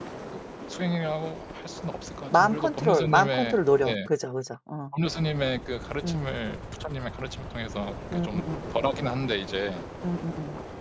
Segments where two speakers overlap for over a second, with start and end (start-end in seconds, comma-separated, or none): 2.3-3.9